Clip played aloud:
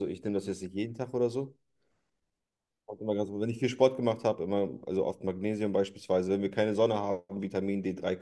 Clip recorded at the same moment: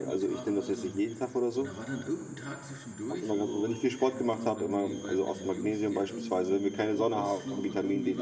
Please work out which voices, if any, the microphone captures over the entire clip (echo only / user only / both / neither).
both